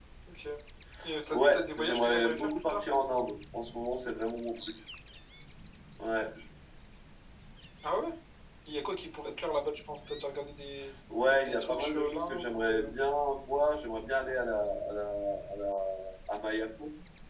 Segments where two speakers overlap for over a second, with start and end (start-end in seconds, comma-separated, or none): 1.3-2.9, 11.3-12.9